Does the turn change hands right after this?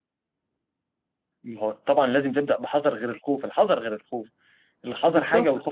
Yes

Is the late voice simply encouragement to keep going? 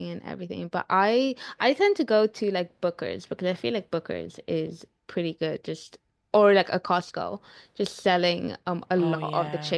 Yes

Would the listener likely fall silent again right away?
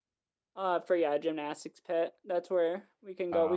Yes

